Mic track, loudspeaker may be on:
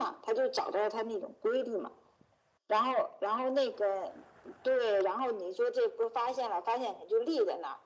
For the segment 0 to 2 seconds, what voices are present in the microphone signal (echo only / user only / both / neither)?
echo only